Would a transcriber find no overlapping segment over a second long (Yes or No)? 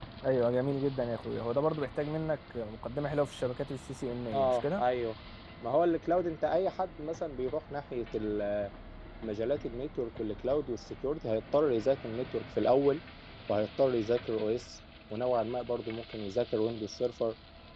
Yes